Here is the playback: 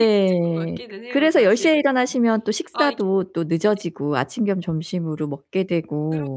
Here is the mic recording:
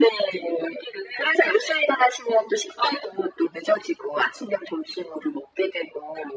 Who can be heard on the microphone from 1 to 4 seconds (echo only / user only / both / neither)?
echo only